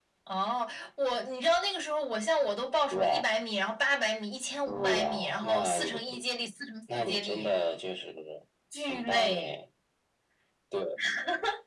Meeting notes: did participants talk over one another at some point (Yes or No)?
Yes